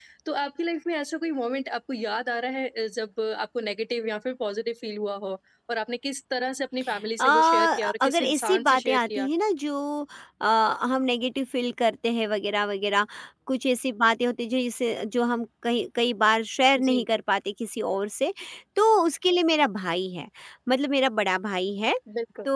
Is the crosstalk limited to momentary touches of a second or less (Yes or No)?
No